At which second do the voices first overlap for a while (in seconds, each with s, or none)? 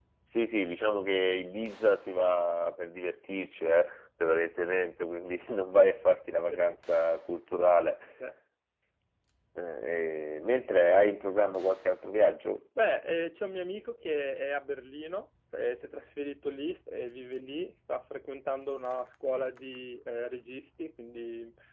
none